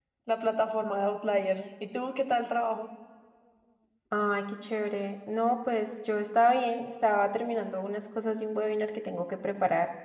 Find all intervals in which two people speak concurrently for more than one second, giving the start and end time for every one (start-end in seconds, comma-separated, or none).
none